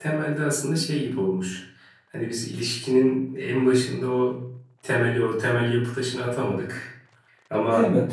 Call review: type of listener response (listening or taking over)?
listening